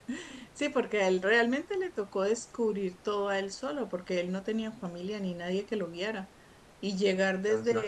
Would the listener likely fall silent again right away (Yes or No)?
Yes